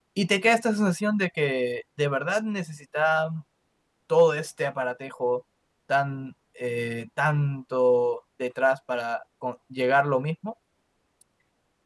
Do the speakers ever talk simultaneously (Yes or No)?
No